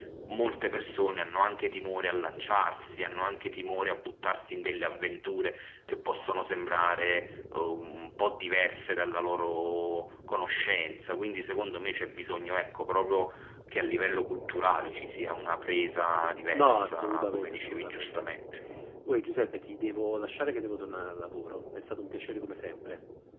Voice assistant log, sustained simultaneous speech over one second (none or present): present